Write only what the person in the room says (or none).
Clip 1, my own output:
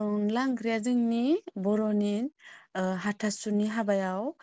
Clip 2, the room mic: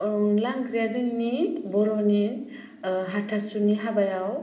none